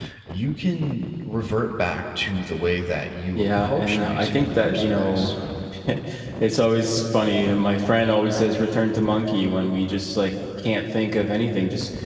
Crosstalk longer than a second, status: present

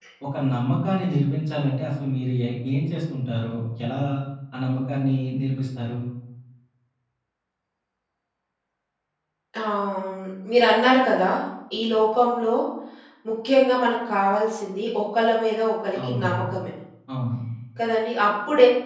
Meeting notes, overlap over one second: none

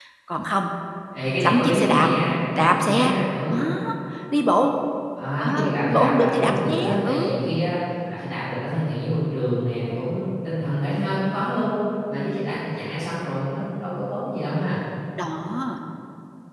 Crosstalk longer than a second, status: present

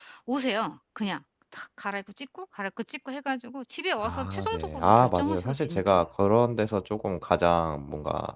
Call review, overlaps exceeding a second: present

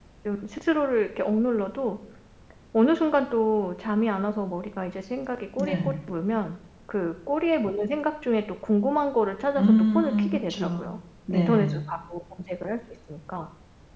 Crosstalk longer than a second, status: present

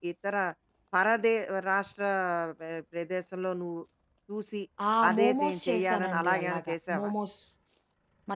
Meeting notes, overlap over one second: present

